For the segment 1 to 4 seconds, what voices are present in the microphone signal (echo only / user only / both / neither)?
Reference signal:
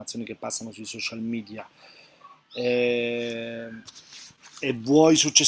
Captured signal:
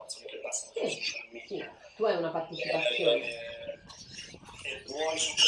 both